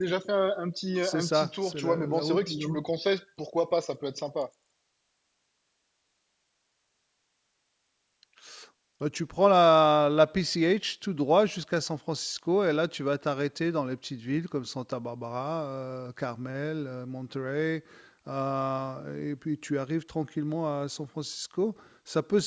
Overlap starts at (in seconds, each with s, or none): 1.0 s